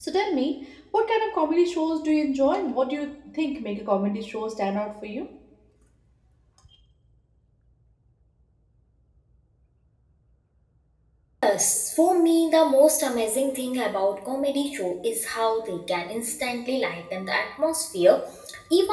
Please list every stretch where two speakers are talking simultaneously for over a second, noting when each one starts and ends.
none

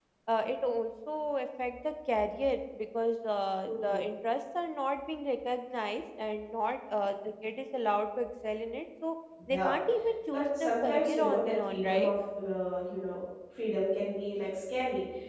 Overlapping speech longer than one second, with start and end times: 10.3-12.1

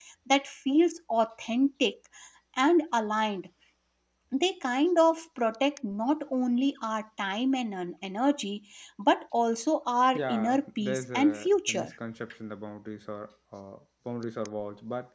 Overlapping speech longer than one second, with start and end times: 10.1-11.9

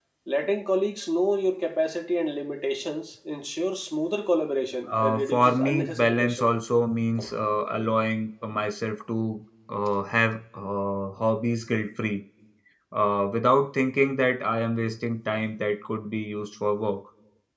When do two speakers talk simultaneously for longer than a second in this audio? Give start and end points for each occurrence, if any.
4.9-6.5

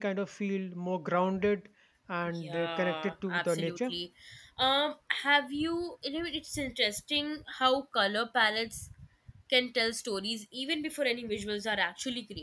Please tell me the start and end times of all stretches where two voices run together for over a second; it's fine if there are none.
2.4-3.9

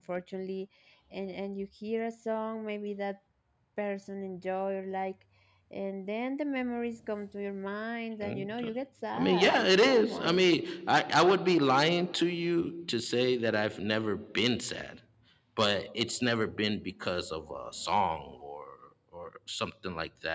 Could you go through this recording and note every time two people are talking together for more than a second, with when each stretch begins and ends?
9.1-10.4

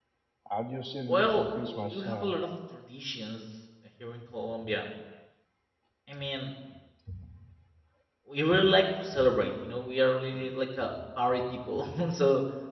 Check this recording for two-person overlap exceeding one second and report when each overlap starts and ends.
1.1-2.3

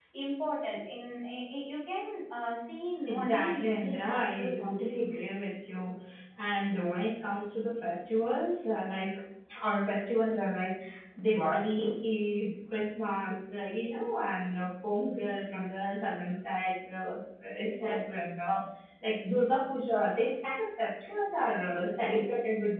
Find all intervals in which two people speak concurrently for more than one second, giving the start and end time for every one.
3.1-4.9

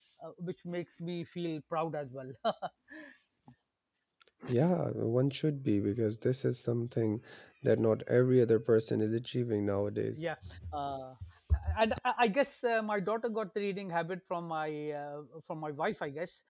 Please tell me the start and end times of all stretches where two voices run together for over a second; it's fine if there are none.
none

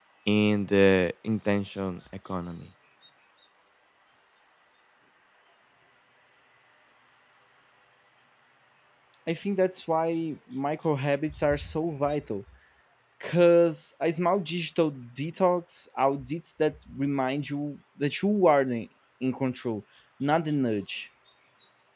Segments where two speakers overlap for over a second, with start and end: none

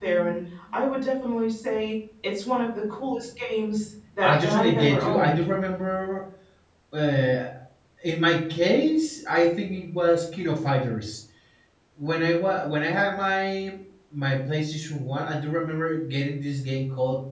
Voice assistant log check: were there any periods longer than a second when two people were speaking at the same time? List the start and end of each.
4.2-5.5

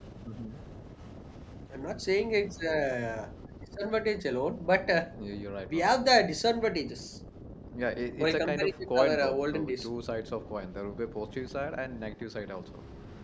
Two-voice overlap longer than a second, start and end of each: 8.2-9.8

